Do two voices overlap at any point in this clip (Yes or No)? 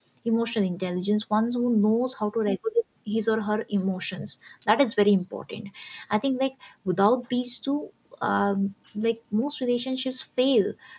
No